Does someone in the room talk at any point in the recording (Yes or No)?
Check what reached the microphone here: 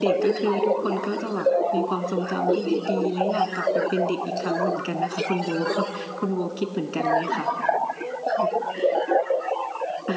Yes